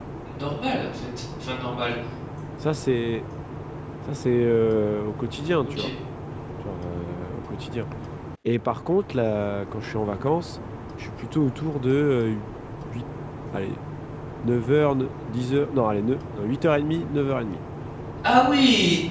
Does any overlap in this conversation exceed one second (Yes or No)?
No